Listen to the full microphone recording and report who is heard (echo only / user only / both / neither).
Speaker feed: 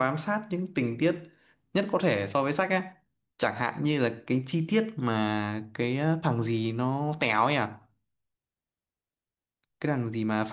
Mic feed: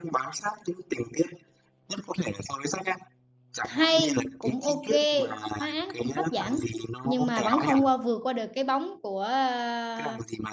both